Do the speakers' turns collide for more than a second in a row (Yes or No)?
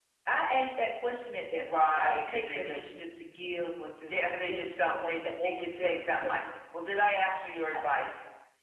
Yes